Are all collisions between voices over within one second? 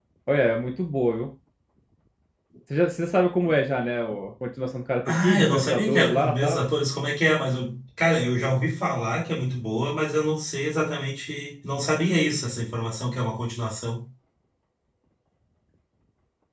No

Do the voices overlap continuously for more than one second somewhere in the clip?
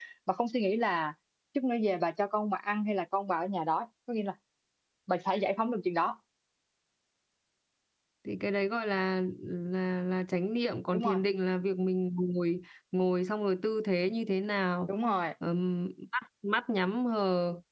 No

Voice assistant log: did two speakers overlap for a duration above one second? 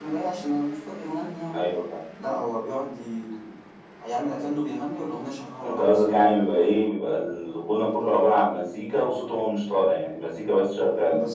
No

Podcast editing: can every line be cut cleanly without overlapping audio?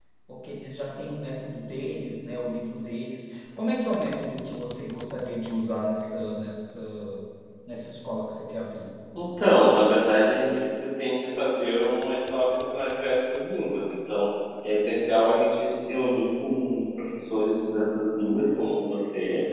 Yes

